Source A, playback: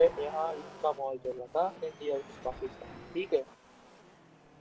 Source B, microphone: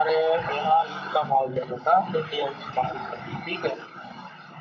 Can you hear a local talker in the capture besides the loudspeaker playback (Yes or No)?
No